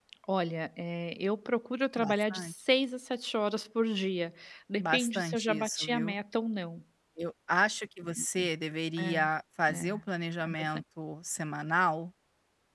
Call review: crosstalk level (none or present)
present